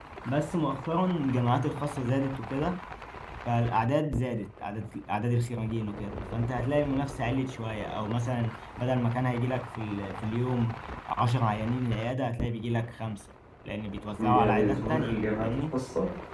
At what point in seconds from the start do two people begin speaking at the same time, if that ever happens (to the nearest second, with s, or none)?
14 s